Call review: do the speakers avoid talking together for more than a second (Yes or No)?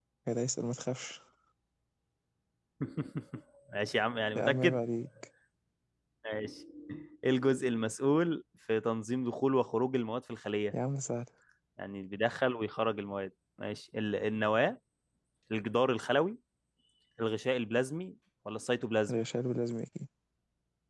Yes